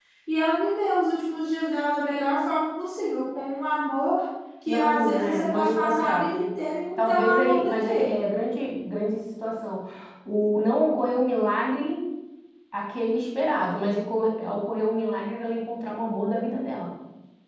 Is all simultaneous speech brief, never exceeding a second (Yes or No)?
No